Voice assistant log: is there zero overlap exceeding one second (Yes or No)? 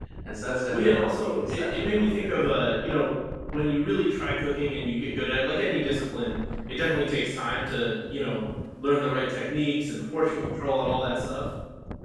No